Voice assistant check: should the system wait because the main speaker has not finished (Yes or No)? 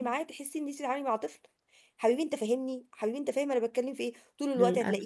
Yes